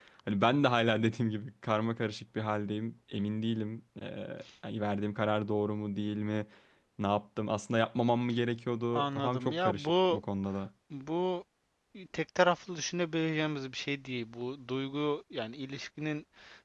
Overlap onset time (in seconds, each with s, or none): 8.9 s